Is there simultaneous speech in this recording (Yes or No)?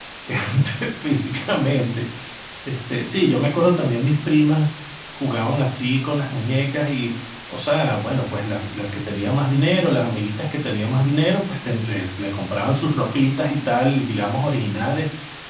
No